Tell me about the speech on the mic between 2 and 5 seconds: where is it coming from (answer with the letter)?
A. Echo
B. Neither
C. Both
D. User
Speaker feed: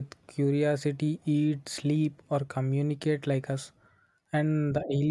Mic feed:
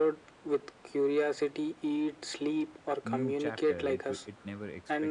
C